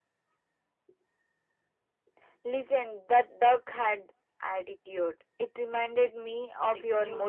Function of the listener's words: taking over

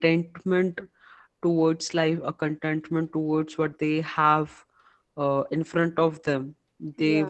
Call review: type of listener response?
listening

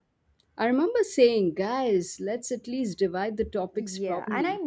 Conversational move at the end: taking over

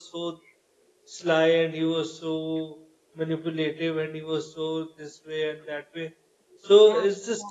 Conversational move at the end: listening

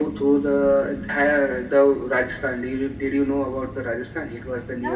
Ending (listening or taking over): taking over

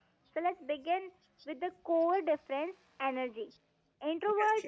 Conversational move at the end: listening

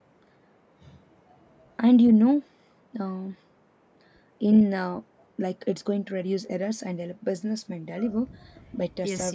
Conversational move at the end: taking over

